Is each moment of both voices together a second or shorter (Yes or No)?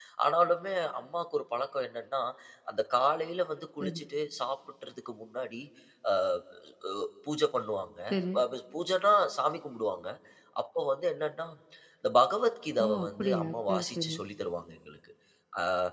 No